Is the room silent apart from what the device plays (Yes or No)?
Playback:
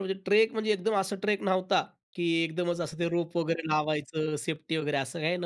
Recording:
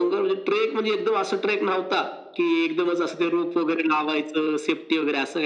Yes